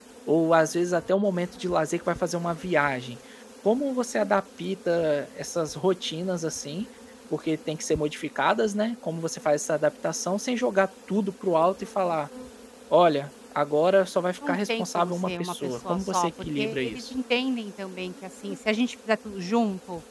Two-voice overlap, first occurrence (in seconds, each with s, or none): 14.4 s